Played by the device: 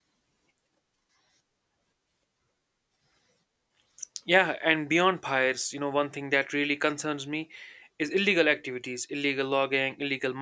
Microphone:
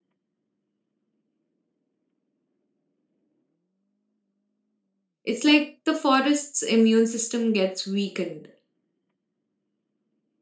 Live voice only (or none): It's like the forest's immune system gets weakened.